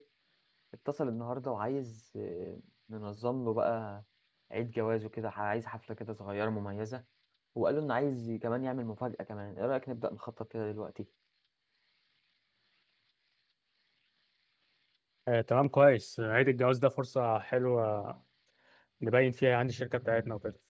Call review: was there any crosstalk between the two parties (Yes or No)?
No